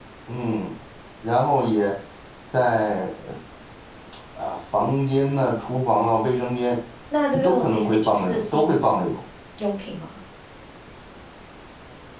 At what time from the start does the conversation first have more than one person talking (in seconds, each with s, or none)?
7.4 s